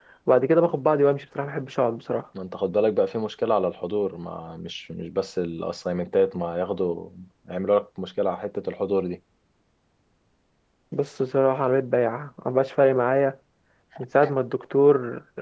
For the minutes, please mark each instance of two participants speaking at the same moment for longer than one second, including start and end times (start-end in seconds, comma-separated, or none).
none